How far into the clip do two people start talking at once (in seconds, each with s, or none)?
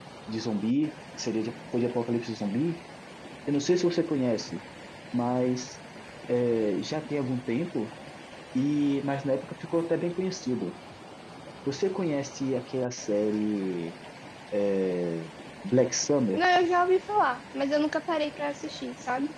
none